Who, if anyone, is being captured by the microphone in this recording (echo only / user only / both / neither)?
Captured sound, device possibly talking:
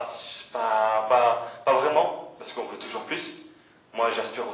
echo only